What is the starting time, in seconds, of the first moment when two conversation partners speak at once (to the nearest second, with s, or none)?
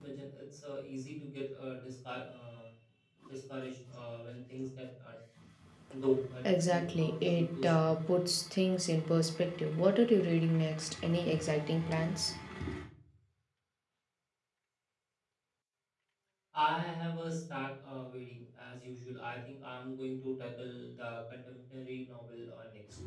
7 s